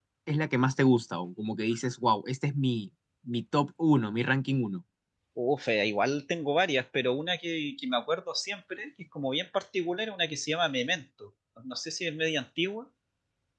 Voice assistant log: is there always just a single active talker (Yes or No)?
Yes